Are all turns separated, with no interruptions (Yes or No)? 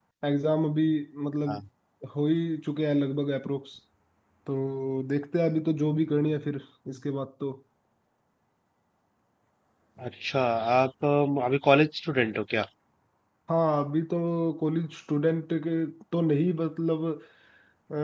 Yes